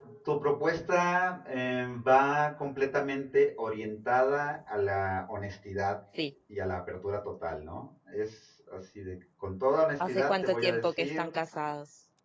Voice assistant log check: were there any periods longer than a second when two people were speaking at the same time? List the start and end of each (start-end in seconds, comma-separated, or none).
10.0-11.2